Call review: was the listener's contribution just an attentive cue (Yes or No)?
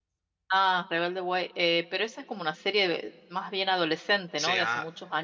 No